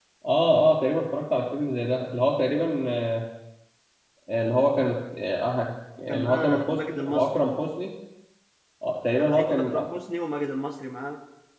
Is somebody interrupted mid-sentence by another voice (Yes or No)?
Yes